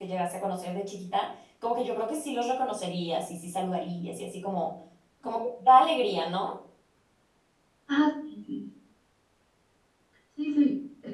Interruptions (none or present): none